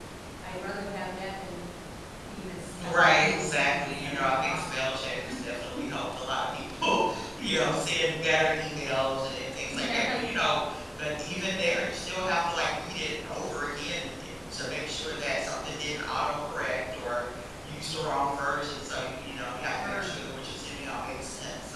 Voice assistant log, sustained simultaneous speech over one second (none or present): present